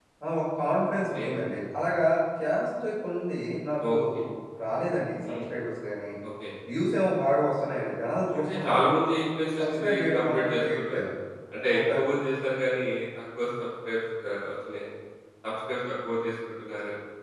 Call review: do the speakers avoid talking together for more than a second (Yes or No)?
No